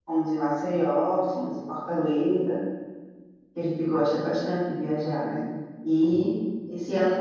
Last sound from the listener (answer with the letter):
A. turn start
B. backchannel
B